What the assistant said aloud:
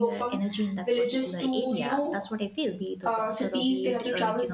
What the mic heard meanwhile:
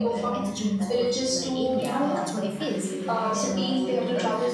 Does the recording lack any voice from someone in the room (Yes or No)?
No